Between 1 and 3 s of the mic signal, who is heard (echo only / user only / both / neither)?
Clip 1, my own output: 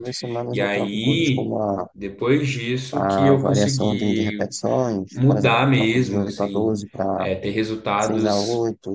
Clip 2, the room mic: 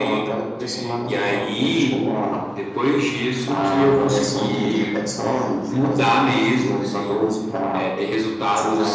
echo only